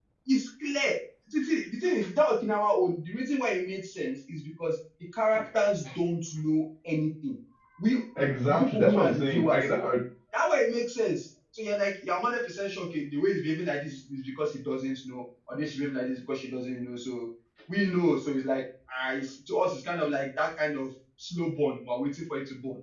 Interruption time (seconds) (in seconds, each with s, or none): 8.2 s